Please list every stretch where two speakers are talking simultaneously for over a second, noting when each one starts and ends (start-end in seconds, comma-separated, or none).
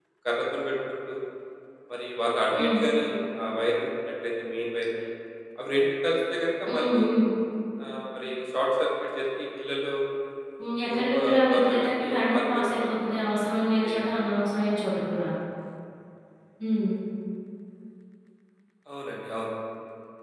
10.9-13.0